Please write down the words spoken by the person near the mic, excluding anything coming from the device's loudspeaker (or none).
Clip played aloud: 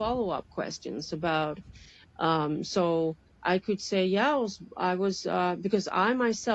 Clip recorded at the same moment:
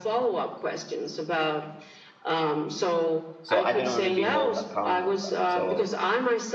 So I don't want to be held account on that. So